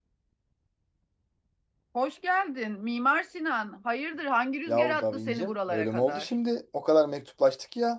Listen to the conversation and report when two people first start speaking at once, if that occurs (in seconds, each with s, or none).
4.7 s